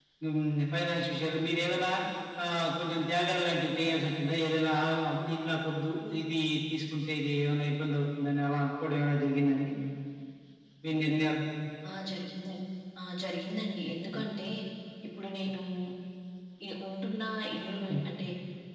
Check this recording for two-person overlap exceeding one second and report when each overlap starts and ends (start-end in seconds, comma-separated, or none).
none